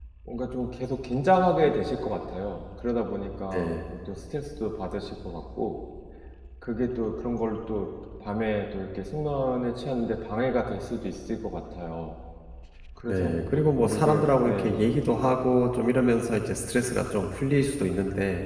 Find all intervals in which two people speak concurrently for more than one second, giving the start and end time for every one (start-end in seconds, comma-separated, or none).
13.1-14.8